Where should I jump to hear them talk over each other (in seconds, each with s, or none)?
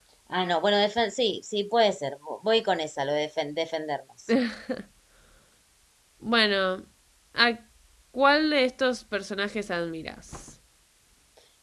none